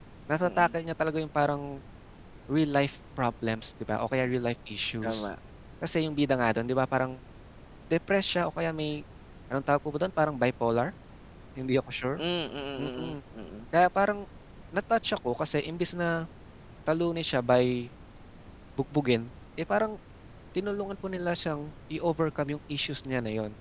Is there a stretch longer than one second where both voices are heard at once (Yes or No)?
No